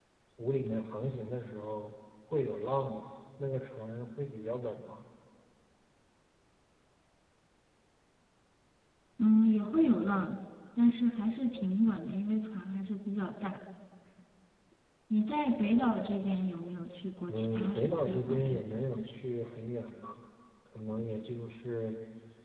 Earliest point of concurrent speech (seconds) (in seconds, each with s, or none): 17.3 s